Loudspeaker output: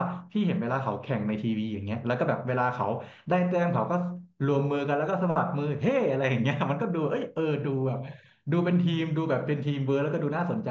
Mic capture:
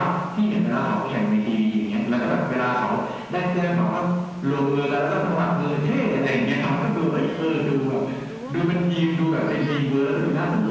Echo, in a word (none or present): present